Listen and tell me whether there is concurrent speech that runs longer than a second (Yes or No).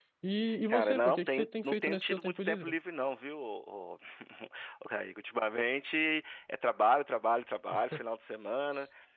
Yes